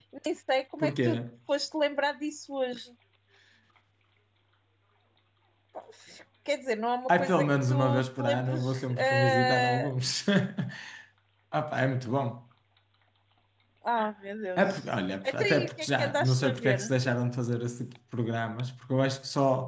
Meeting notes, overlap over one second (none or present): present